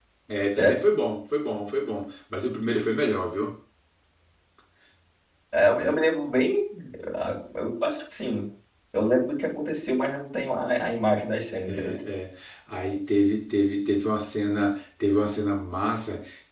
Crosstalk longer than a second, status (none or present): none